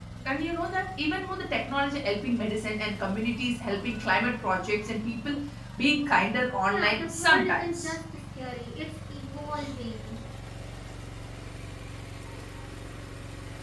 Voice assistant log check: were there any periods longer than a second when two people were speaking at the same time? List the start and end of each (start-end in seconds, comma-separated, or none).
6.6-7.9